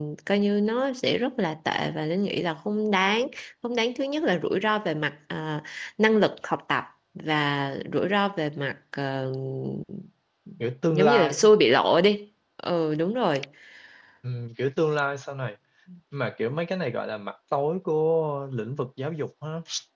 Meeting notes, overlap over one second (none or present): none